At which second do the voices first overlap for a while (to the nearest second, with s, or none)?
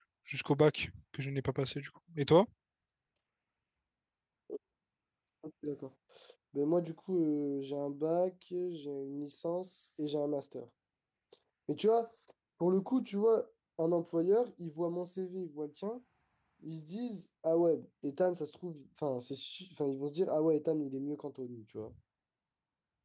none